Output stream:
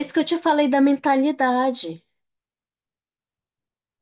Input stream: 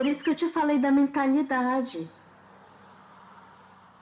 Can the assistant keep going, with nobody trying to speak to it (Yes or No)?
Yes